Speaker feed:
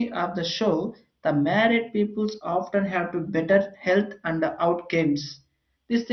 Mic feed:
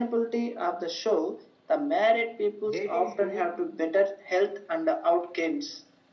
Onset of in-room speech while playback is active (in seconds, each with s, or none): 2.8 s